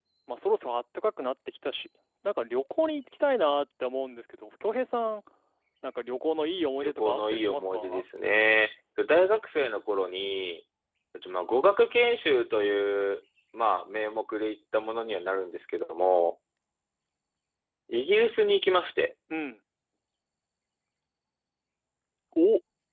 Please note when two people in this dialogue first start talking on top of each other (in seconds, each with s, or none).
6.8 s